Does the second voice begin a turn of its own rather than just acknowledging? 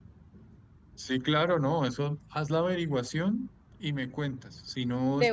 No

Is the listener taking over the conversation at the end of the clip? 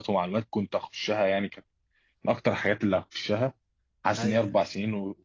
No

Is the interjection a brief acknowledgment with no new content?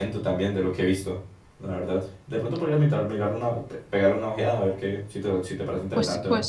No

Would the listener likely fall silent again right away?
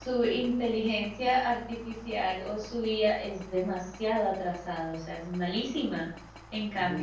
Yes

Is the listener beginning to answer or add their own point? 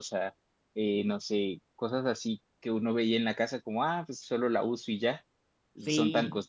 No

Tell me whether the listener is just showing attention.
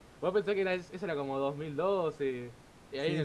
Yes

